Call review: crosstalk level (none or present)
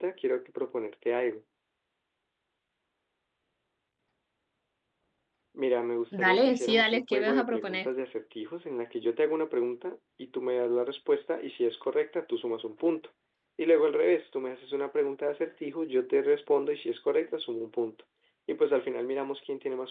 present